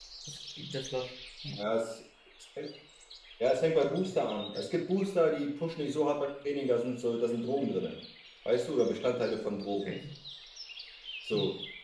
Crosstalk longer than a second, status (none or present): none